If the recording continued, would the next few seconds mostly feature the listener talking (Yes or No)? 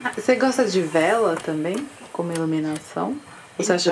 No